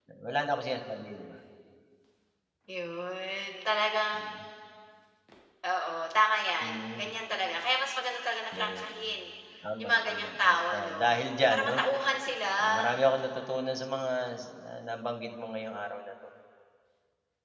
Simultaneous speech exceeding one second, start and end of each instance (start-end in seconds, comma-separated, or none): 9.8-11.0